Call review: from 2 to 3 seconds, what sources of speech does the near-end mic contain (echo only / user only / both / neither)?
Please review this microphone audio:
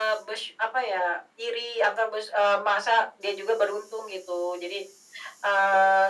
echo only